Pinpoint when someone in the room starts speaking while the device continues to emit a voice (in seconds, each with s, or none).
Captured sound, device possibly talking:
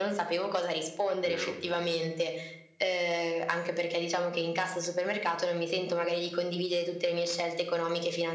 1.2 s